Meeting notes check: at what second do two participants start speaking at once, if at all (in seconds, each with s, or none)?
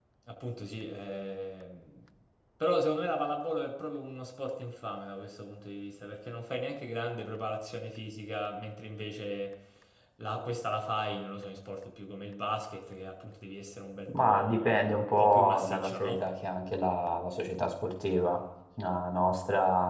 14.1 s